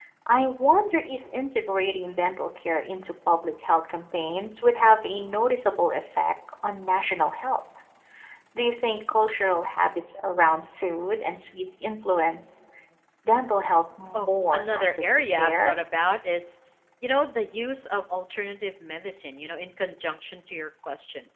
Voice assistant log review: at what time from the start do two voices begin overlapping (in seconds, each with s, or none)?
14.1 s